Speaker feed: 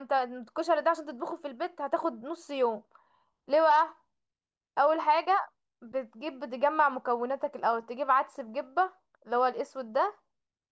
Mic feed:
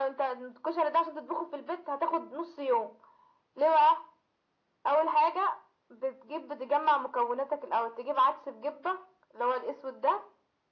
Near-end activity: none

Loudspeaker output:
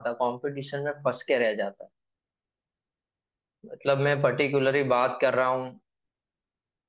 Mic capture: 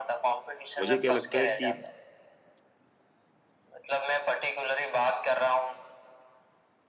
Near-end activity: present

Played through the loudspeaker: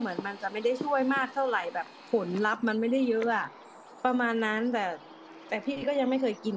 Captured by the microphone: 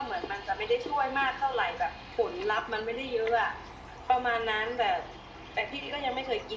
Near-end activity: none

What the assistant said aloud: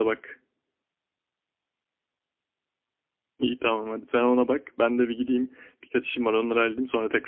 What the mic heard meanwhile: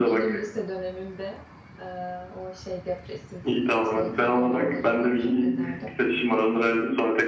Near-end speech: present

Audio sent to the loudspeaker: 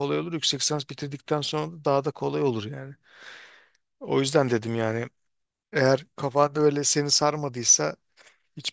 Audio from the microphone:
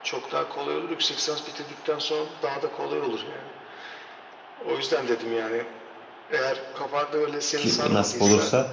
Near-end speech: present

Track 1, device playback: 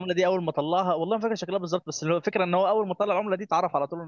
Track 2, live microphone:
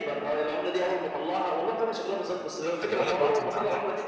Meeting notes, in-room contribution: present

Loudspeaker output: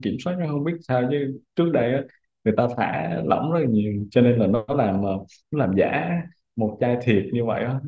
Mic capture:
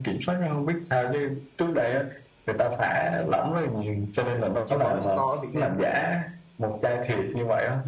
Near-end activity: present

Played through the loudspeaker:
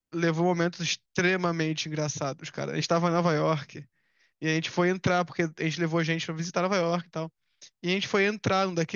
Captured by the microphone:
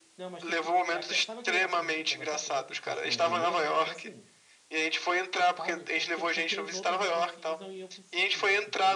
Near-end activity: present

